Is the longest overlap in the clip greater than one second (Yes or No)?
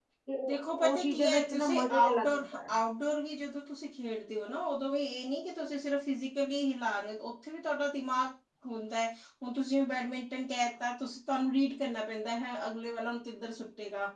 Yes